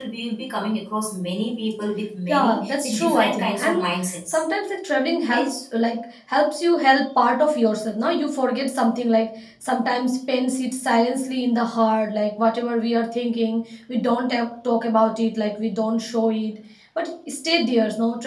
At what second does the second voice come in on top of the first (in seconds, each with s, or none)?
2.3 s